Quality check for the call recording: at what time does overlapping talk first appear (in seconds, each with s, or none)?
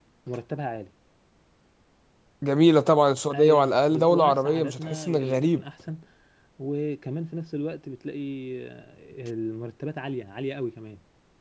3.3 s